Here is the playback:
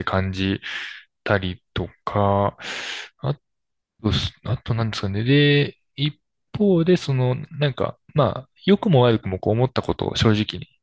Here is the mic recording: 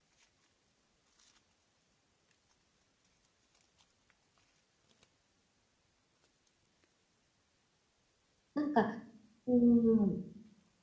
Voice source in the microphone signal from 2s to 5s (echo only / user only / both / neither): neither